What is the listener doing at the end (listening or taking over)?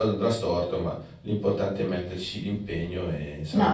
taking over